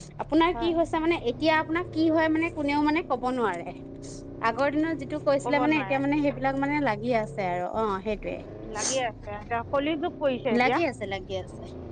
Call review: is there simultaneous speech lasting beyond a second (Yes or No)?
No